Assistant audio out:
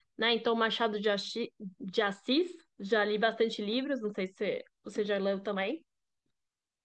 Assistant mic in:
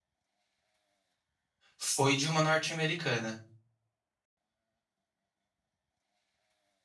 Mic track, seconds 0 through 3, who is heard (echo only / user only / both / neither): user only